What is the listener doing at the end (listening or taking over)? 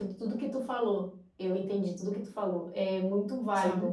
listening